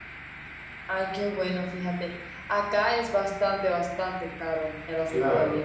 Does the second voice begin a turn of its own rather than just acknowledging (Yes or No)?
Yes